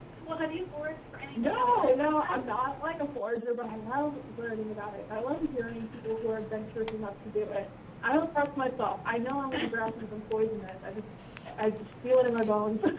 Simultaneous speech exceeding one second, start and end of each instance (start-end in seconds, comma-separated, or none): 1.4-2.6